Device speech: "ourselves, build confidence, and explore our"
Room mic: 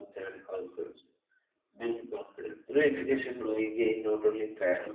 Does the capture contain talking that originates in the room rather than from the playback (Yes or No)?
Yes